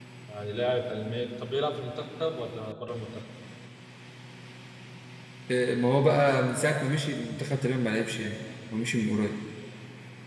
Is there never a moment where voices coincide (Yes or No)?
Yes